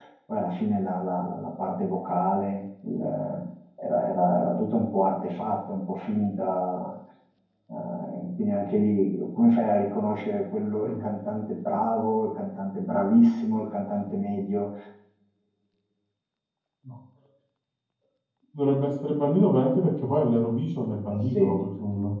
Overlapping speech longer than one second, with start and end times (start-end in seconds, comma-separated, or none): none